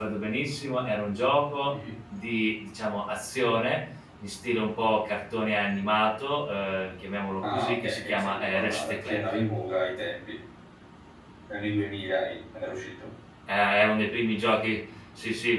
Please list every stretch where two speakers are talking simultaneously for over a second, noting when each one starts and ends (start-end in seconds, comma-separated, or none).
7.5-9.4